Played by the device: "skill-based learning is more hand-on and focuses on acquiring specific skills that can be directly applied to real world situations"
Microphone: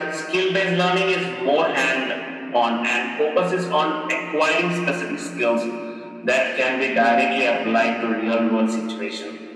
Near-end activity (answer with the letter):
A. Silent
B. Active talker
A